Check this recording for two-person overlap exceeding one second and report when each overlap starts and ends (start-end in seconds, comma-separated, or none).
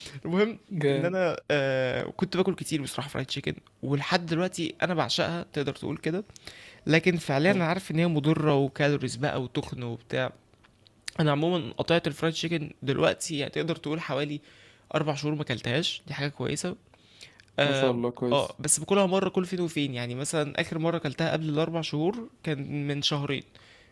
none